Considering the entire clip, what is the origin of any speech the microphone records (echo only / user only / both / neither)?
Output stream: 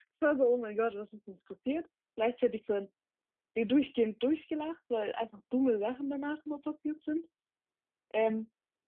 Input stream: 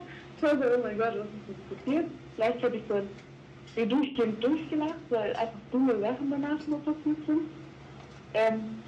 echo only